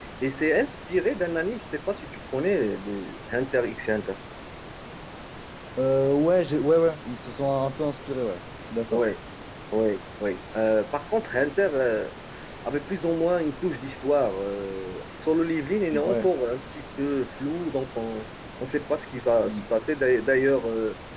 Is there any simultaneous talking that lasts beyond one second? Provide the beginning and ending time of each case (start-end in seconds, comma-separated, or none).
none